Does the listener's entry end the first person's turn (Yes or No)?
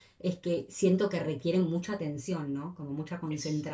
No